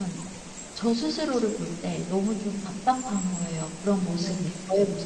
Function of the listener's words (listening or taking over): taking over